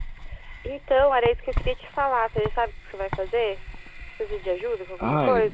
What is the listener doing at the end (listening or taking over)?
taking over